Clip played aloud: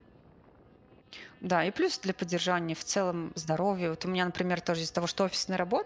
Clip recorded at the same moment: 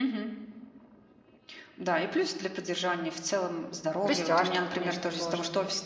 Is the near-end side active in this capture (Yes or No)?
Yes